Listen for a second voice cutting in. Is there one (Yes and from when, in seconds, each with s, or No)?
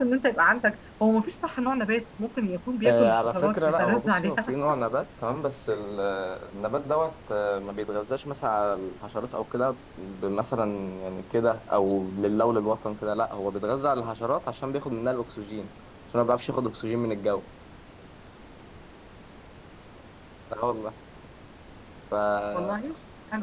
Yes, from 2.8 s